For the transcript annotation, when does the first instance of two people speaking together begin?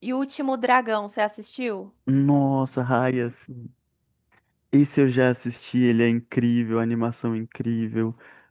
none

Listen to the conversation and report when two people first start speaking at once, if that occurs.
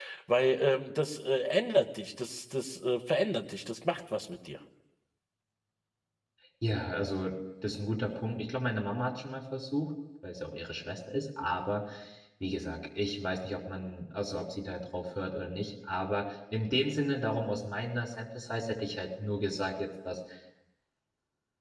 none

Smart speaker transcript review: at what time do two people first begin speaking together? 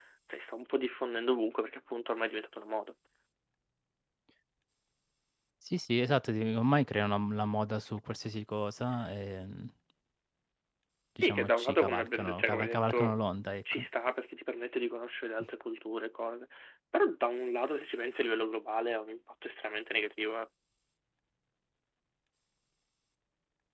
11 s

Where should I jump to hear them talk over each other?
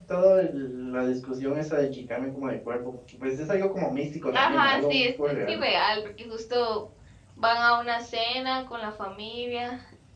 4 s

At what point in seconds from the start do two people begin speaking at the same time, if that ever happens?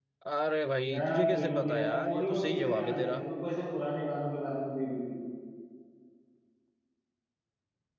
1 s

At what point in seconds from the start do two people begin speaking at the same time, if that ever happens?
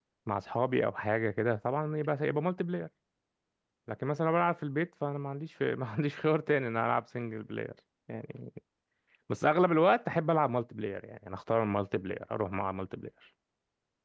none

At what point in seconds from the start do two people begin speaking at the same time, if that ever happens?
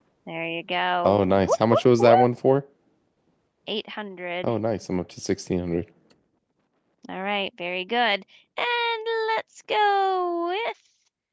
1 s

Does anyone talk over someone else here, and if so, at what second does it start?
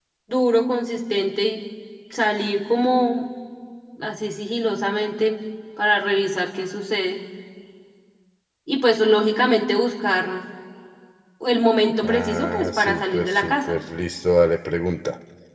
12 s

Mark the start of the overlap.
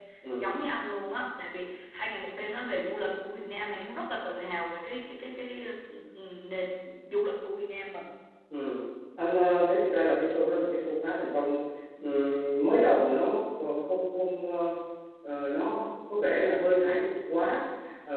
none

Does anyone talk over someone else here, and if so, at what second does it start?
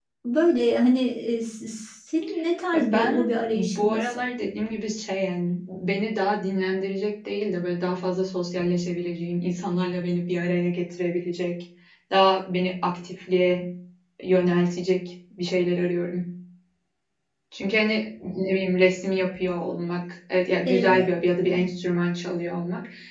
3 s

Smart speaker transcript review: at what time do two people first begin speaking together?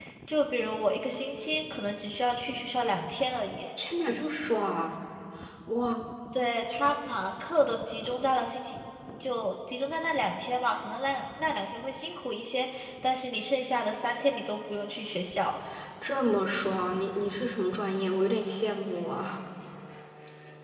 none

